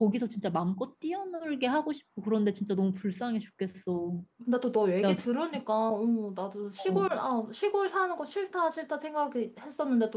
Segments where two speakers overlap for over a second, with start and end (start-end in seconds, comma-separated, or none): none